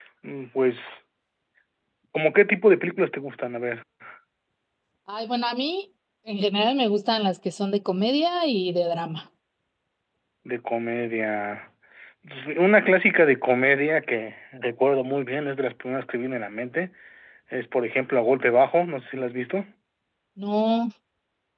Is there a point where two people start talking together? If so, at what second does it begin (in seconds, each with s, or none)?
none